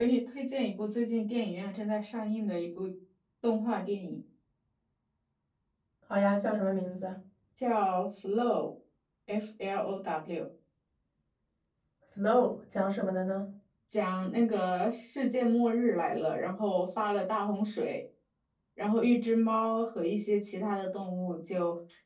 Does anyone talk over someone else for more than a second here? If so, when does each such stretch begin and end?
none

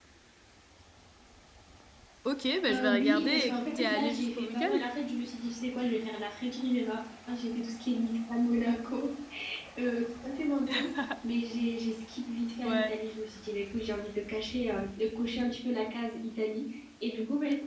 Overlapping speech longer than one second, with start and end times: 2.7-4.9

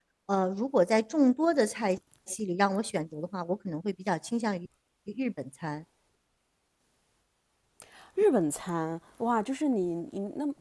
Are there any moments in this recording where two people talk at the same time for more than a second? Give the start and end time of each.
none

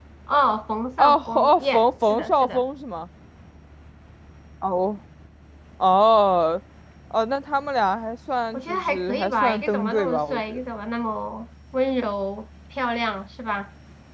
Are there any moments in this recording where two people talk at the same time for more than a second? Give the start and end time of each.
1.0-2.6, 8.5-10.6

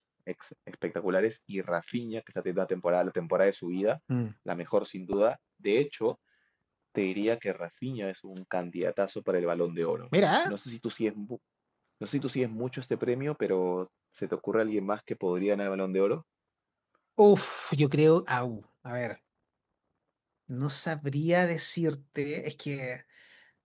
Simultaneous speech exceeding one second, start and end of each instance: none

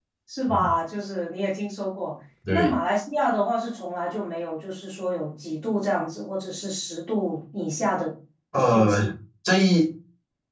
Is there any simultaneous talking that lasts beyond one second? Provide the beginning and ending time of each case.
none

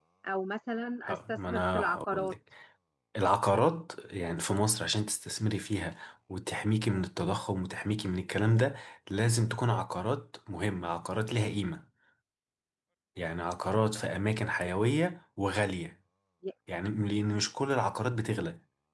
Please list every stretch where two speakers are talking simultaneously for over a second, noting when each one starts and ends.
1.0-2.3

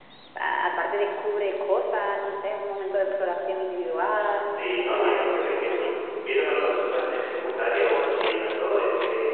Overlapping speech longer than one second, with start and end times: 4.4-6.0

